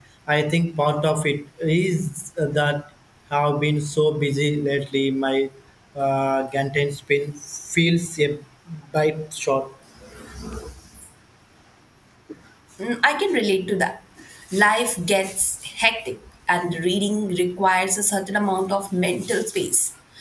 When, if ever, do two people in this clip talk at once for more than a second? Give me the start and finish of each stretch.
none

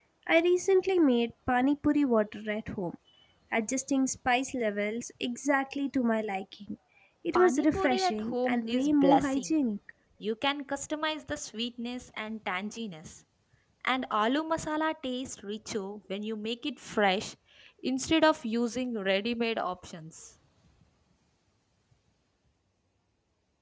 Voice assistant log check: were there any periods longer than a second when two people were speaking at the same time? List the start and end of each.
7.3-9.5

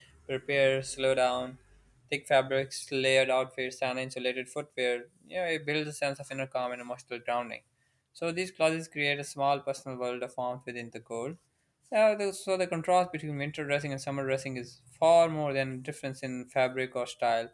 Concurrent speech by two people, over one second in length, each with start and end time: none

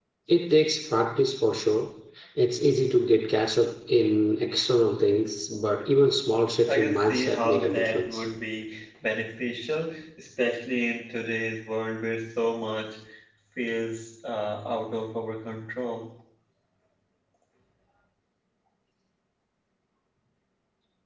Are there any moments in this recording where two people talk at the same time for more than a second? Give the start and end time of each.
6.7-8.2

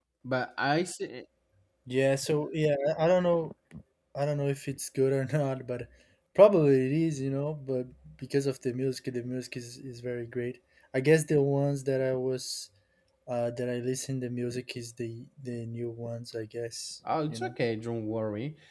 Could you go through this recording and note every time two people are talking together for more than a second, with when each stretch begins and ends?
none

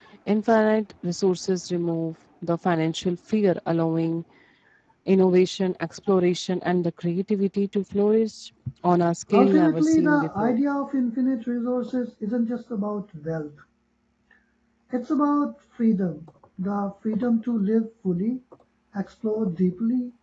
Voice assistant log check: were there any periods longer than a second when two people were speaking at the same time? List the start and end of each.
9.3-10.6

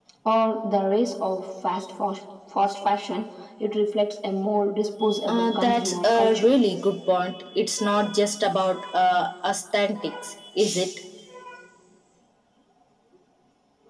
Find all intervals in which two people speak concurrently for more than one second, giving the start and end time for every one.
5.3-6.5

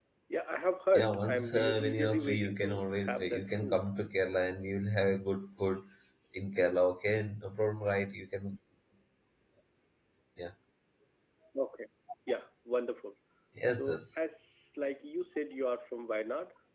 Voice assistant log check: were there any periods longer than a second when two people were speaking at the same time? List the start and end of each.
0.9-3.8

